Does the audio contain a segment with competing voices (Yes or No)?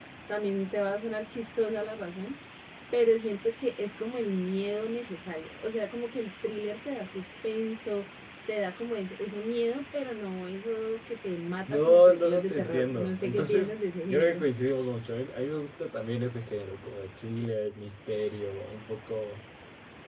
Yes